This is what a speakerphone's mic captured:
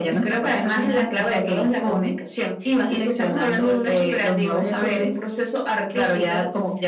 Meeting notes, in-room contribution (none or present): none